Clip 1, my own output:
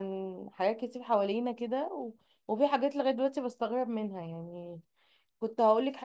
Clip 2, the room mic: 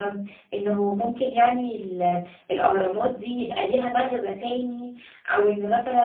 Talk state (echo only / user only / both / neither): user only